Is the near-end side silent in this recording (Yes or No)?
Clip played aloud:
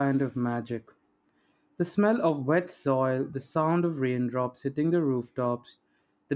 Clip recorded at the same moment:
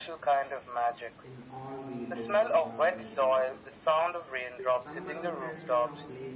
No